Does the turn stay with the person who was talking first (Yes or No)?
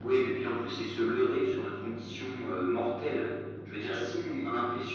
Yes